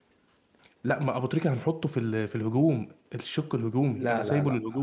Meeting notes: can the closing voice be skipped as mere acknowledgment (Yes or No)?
No